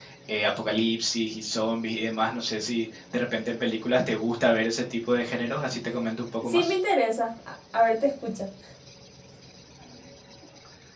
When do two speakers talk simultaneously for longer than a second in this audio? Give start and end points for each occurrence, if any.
none

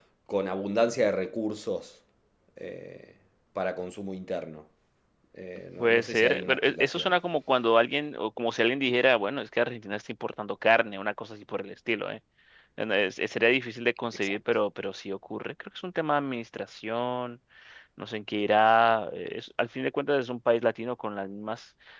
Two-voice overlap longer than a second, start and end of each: 5.8-7.1

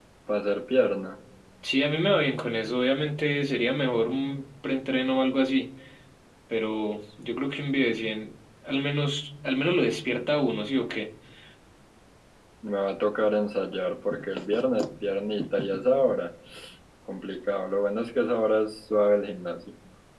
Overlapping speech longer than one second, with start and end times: none

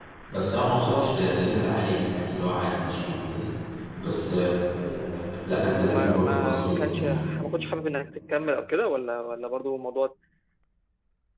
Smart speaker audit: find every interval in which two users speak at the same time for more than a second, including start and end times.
5.7-7.0

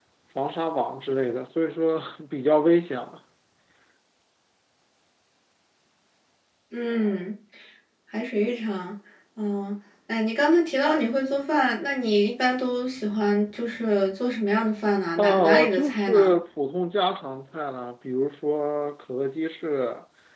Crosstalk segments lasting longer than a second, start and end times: 15.2-16.4

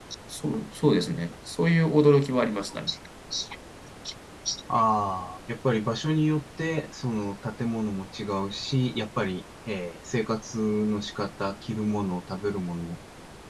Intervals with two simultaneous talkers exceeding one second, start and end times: none

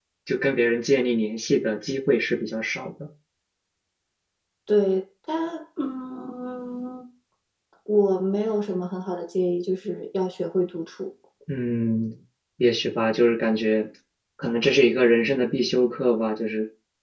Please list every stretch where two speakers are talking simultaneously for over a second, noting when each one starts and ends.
none

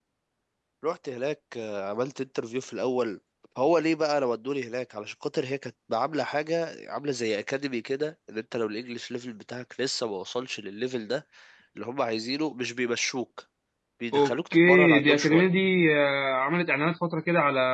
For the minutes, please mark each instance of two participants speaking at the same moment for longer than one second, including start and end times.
14.1-15.5

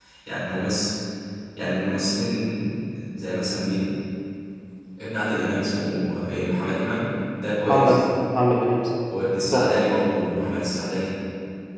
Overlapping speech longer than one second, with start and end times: none

